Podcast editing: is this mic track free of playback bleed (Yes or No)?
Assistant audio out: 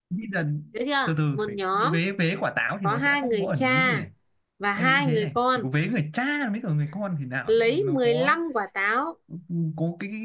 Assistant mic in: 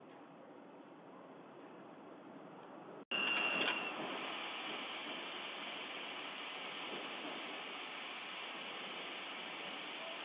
Yes